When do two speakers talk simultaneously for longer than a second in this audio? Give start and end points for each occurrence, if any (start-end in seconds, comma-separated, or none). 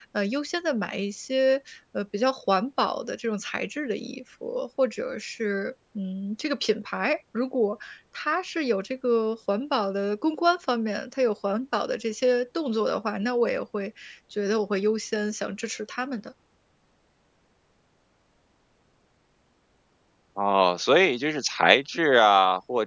none